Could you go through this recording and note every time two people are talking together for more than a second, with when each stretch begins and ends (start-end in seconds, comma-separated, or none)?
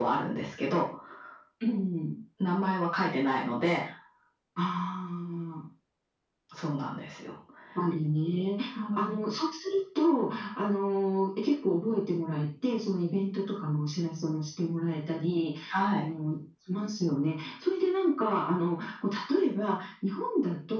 none